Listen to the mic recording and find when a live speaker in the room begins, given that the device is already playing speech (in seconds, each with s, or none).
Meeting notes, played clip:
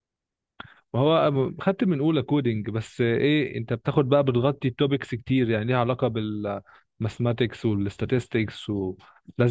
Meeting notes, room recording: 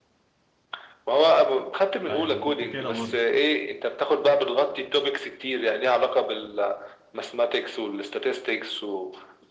2.1 s